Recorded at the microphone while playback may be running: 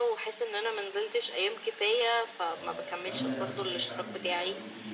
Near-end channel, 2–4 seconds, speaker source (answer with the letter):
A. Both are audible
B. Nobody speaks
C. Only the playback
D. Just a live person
A